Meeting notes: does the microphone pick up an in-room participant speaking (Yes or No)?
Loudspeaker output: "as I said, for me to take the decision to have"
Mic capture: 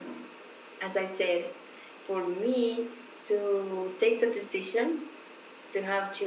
No